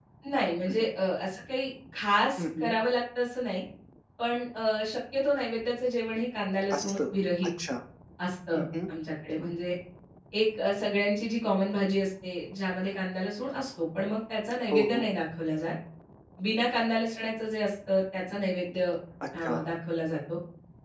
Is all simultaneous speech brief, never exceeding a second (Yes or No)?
Yes